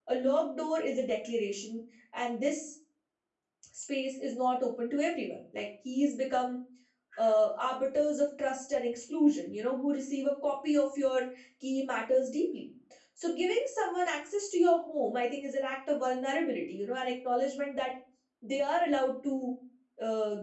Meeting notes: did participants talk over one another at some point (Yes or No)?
No